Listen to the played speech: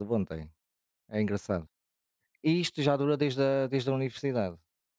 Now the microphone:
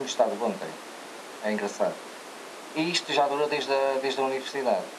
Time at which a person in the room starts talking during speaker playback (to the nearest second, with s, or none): none